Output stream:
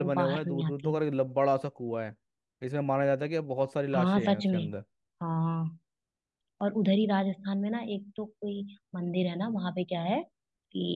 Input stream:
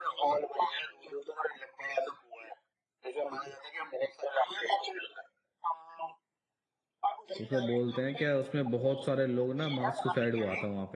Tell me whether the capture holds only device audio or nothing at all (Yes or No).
No